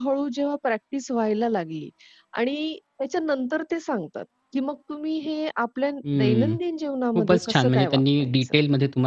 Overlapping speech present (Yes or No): Yes